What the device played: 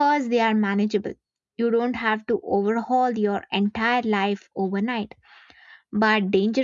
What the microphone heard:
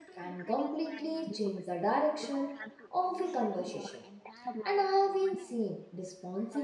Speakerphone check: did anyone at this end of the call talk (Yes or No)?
Yes